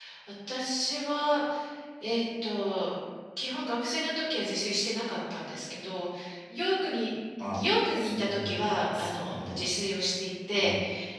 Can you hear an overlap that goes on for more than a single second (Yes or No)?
Yes